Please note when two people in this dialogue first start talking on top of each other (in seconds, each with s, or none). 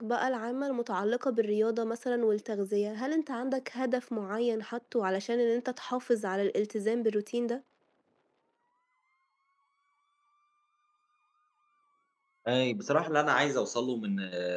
none